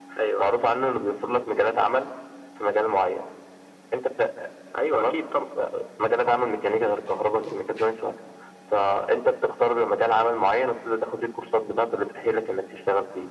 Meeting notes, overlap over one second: none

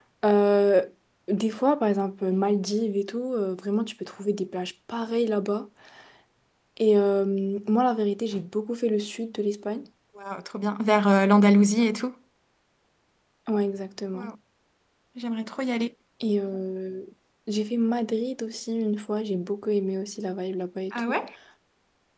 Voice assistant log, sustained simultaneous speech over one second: none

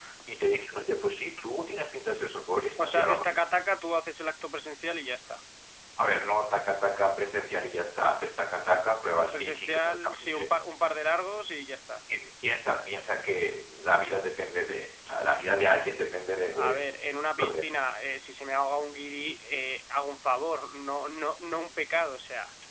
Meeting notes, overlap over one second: present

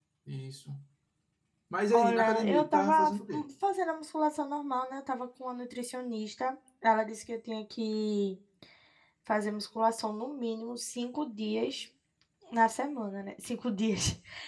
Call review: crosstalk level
present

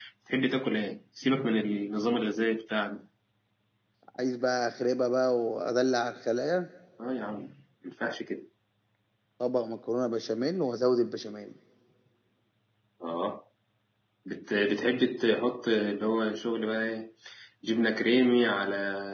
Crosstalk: none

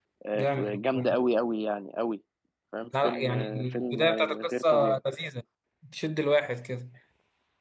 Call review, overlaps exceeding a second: present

